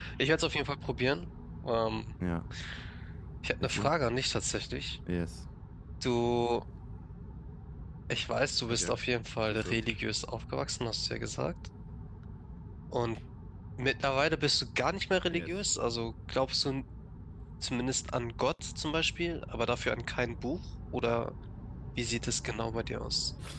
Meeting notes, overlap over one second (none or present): none